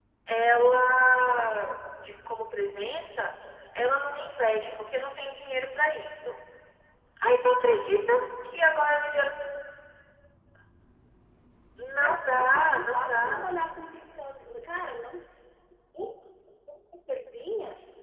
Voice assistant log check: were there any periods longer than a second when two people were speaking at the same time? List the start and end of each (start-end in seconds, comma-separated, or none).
11.9-13.5